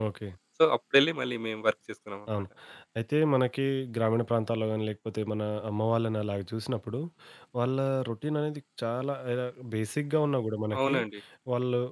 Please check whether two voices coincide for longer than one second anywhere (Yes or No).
No